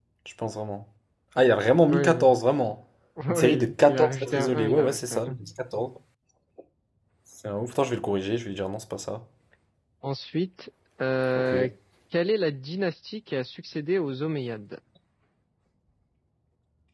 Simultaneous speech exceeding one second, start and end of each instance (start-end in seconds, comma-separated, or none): 3.3-5.4